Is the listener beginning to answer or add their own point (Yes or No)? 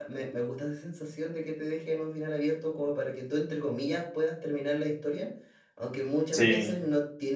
No